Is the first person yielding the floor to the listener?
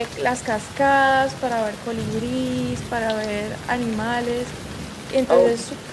No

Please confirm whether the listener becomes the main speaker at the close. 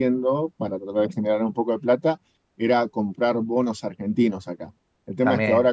No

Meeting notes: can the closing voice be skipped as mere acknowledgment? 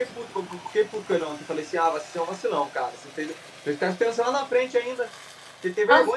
Yes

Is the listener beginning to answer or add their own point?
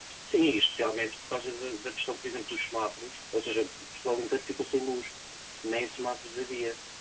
No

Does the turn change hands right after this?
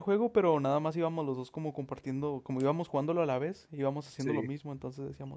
No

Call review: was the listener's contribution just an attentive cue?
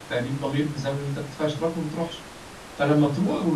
Yes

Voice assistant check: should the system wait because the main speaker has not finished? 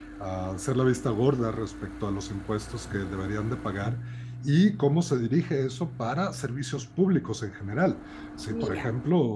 Yes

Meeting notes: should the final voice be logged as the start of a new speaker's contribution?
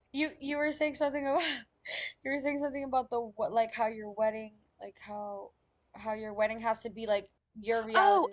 Yes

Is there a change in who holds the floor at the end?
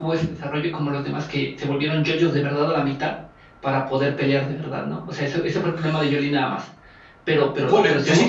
Yes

